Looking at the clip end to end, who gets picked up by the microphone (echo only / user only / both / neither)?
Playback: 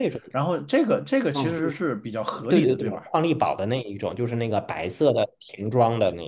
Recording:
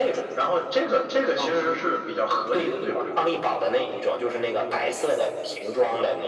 echo only